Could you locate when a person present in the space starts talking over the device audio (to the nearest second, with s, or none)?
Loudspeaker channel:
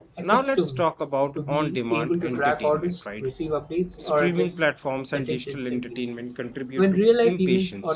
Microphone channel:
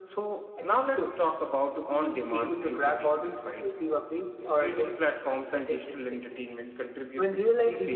none